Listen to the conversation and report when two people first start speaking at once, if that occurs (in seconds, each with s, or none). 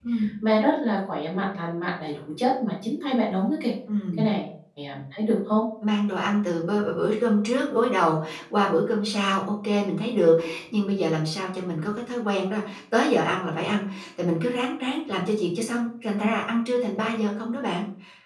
none